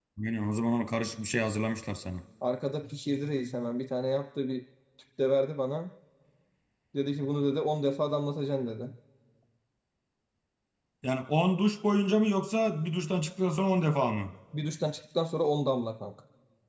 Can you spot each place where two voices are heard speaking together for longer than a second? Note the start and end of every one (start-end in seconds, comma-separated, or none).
none